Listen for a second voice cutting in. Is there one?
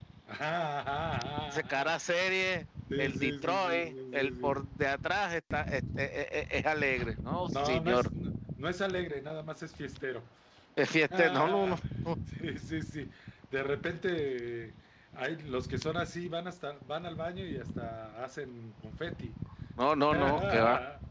Yes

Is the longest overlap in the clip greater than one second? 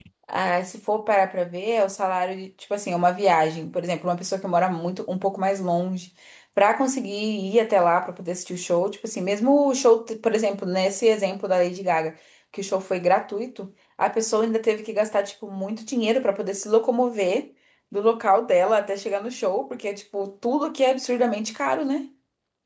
No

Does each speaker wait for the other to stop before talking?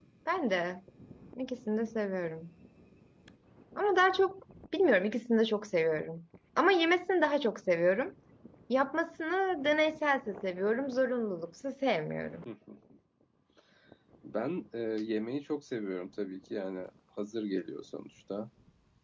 Yes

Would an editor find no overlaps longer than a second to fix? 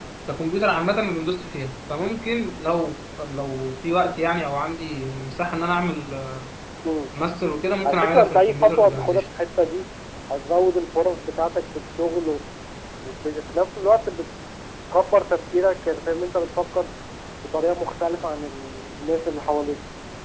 No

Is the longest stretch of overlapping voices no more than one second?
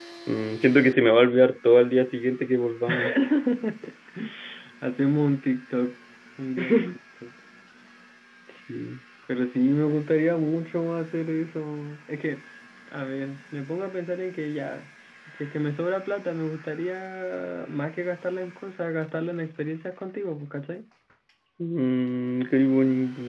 Yes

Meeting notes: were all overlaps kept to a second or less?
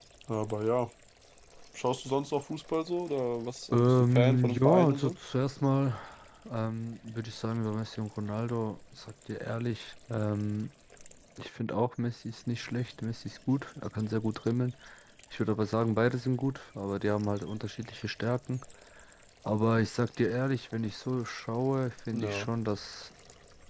No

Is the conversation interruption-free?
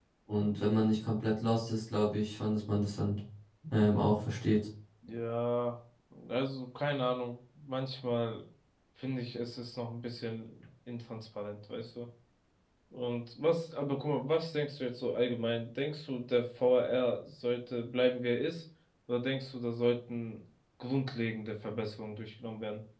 Yes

